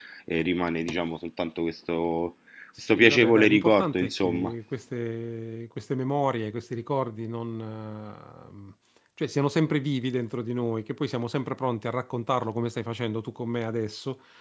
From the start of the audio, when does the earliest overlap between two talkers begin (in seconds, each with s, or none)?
2.8 s